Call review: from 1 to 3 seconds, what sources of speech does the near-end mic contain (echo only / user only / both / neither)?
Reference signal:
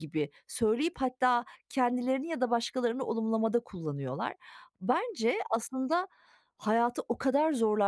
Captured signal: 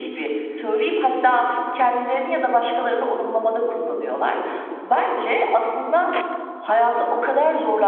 echo only